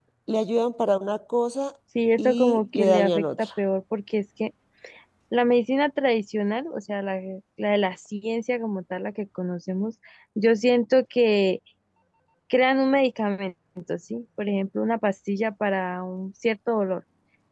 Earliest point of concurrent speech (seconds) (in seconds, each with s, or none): 2.2 s